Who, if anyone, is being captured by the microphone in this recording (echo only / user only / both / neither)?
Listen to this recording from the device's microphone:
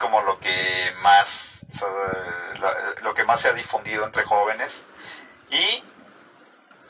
echo only